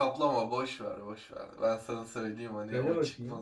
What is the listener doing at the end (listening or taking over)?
listening